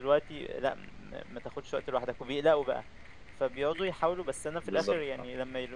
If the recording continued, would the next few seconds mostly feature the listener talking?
No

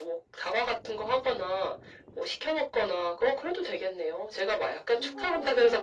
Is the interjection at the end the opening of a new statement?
No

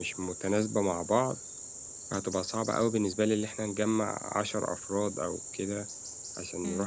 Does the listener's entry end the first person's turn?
Yes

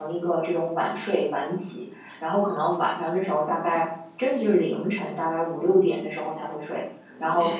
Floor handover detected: No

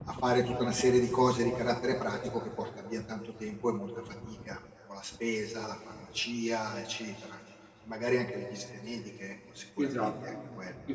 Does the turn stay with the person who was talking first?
No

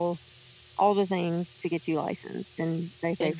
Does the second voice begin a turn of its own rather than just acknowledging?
Yes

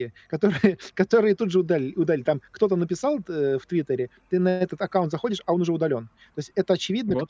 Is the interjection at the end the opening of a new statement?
No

